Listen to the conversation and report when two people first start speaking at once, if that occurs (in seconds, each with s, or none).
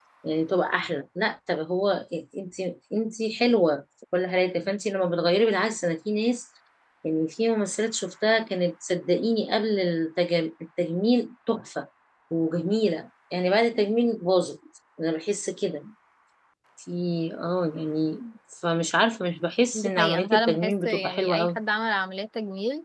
19.7 s